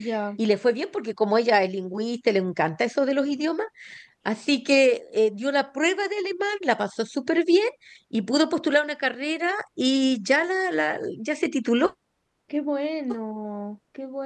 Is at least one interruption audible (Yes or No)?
No